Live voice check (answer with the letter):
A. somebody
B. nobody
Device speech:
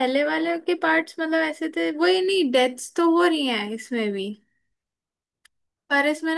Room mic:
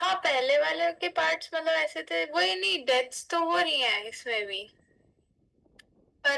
B